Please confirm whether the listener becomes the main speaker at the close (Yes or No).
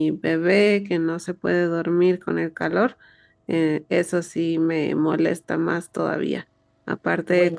No